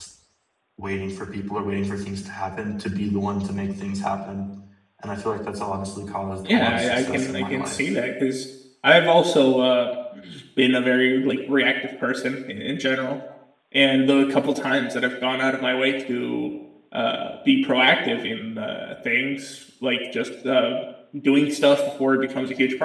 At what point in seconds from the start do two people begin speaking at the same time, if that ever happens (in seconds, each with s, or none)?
6.4 s